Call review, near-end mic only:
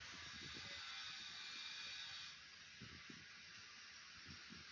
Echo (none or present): none